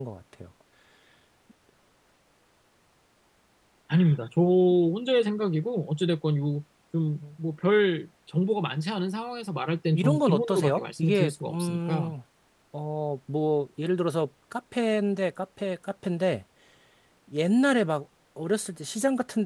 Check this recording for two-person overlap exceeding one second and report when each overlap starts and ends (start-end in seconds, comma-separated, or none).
9.9-12.1